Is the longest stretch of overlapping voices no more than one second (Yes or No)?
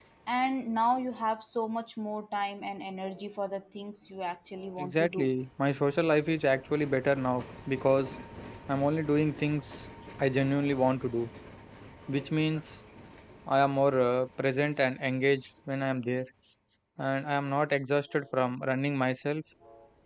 Yes